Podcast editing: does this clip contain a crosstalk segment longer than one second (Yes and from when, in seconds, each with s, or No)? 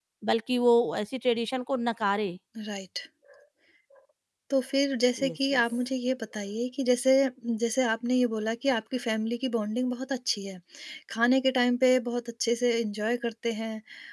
No